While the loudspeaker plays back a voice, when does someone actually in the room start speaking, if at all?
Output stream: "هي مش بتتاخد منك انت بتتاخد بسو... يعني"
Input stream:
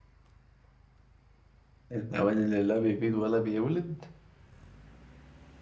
1.9 s

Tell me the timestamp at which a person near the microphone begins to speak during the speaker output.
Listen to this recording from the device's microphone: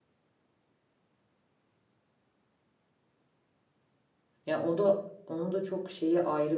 4.5 s

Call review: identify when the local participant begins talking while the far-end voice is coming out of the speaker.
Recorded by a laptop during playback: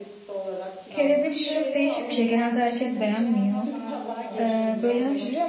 0.9 s

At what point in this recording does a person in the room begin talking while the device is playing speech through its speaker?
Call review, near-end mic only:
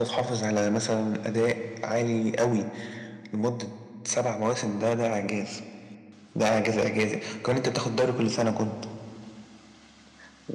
none

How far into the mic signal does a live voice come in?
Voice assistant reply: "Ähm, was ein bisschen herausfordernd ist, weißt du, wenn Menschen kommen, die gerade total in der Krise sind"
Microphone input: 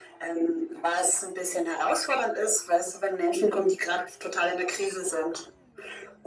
none

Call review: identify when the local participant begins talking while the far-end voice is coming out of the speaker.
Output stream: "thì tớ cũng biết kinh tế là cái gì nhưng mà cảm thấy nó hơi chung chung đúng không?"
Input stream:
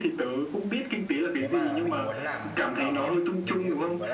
1.4 s

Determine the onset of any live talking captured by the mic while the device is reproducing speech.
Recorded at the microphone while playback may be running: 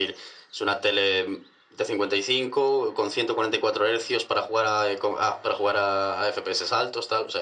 none

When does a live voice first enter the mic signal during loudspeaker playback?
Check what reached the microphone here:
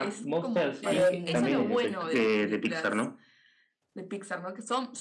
0.8 s

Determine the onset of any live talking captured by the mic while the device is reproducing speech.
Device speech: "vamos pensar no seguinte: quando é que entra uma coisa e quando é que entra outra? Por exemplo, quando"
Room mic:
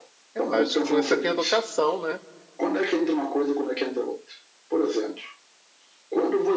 0.3 s

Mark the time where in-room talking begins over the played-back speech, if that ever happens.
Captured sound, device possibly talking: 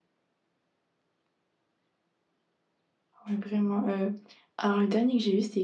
3.3 s

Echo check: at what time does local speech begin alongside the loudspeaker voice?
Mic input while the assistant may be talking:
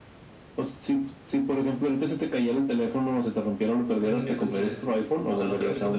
3.8 s

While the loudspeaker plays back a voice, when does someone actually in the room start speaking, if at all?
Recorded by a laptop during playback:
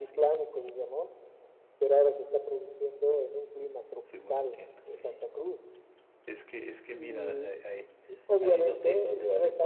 4.0 s

